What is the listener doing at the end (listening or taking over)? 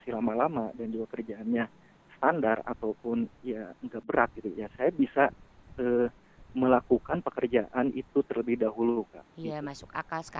taking over